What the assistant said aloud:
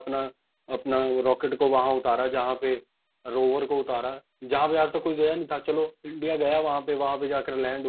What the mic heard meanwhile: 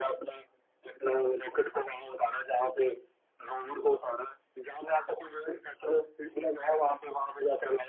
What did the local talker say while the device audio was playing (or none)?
none